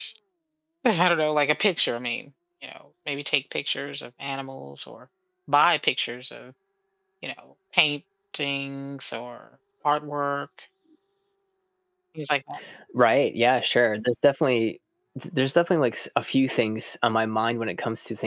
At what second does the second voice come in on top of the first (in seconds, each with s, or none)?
none